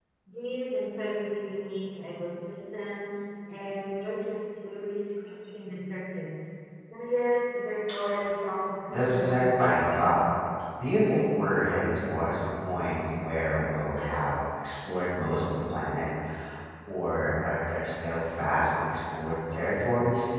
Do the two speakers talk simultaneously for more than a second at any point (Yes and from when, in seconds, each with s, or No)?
Yes, from 8.9 s